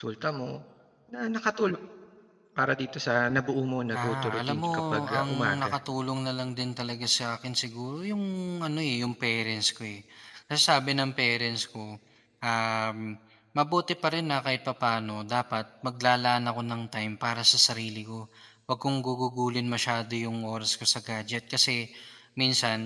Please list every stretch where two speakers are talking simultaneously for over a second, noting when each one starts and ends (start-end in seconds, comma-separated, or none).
3.9-5.8